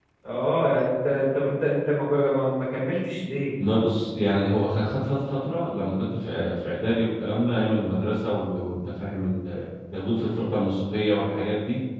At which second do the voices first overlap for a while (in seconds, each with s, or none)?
none